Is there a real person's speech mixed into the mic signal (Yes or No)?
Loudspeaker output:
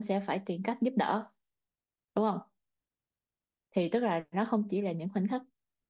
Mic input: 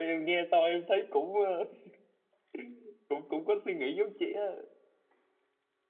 Yes